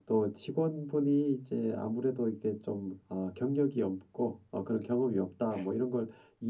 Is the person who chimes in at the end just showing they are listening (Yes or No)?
Yes